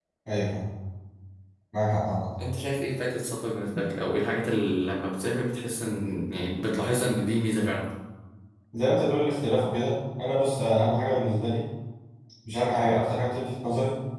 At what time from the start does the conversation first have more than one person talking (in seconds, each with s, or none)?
none